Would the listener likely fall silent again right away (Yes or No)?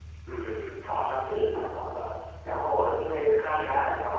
Yes